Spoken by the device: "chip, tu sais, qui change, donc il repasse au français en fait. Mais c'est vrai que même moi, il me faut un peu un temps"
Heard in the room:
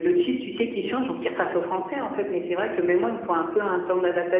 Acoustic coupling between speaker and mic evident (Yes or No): Yes